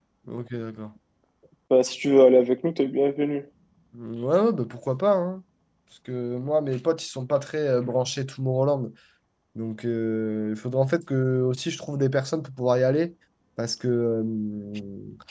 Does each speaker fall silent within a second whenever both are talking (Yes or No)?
Yes